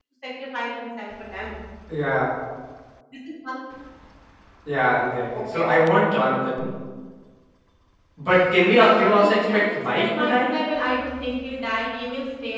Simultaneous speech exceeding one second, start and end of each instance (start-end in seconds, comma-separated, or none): 8.7-10.5